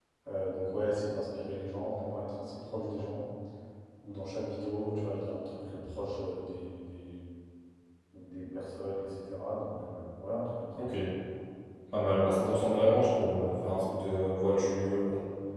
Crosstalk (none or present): none